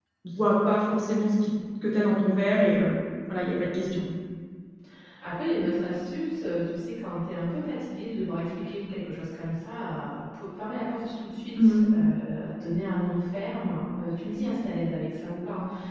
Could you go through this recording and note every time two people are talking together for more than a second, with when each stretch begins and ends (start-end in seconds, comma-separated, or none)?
none